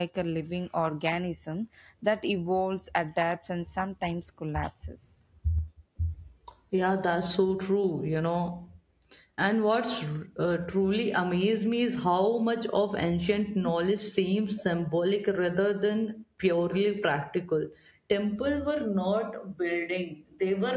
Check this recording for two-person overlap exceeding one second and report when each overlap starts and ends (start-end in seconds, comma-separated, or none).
none